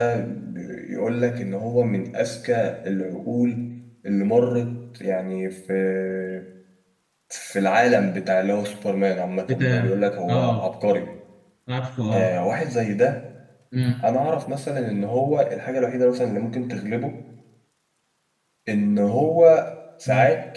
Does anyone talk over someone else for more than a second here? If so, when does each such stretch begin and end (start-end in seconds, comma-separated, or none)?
none